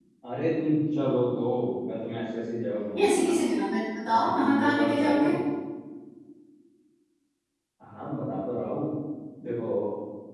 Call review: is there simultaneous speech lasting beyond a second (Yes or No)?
Yes